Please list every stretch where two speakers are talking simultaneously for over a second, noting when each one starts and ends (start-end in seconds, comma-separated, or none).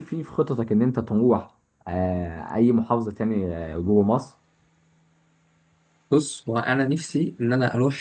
none